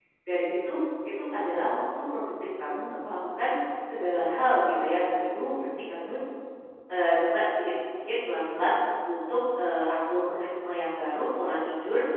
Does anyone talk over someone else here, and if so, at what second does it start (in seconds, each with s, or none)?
none